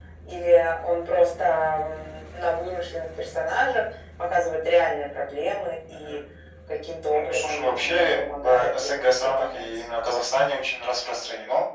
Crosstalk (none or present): present